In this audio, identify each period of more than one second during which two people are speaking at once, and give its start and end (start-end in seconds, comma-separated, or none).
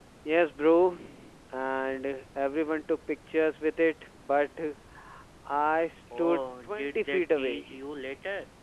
6.2-7.9